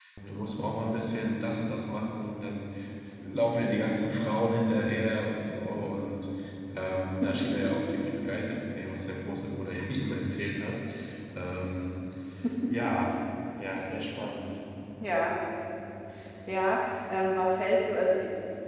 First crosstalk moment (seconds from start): none

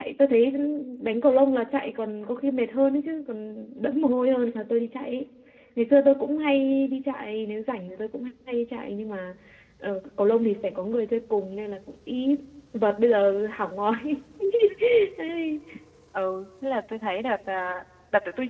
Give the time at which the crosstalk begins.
none

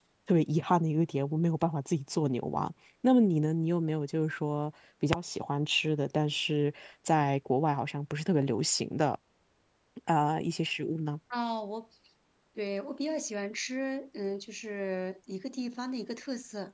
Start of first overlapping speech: none

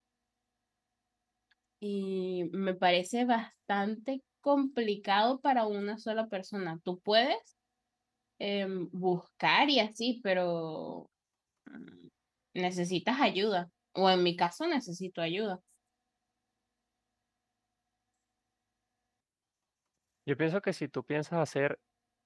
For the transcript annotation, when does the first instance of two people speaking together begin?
none

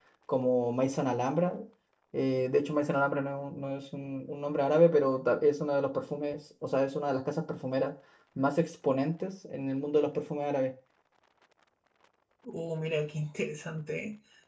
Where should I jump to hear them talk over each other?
none

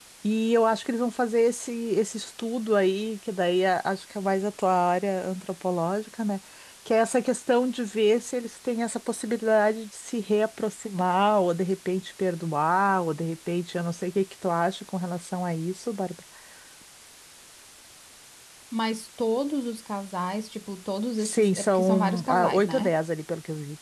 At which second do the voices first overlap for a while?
21.2 s

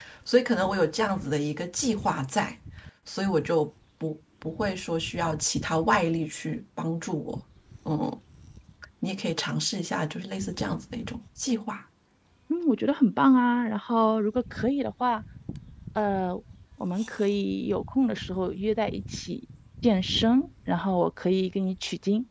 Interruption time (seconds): none

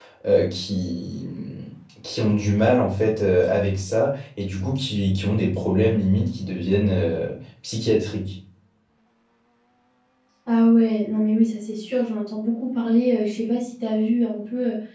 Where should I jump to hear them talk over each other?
none

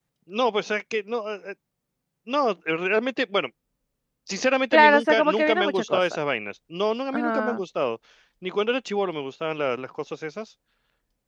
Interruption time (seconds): 4.7 s

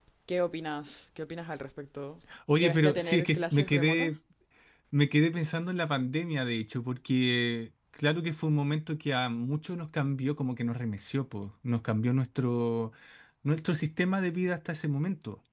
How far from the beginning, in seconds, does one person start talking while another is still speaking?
2.3 s

